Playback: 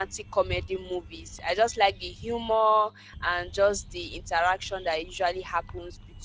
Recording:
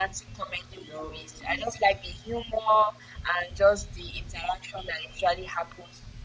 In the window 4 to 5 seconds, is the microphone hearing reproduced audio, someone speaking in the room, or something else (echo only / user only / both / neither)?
echo only